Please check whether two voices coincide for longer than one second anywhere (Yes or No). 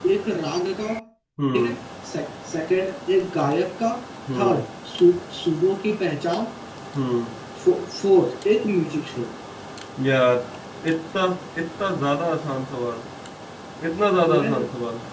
No